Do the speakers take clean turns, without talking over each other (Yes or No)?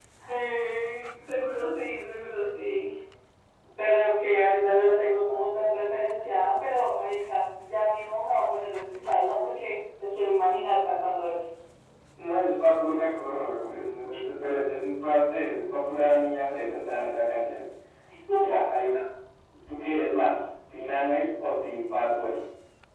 Yes